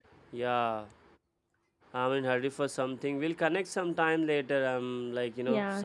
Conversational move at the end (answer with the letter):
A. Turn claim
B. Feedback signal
A